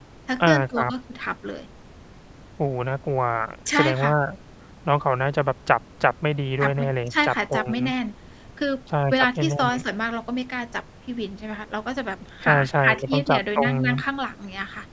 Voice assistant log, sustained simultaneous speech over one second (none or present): present